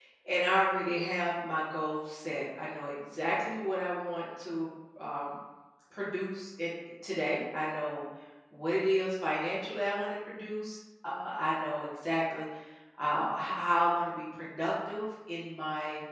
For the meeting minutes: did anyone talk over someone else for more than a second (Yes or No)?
No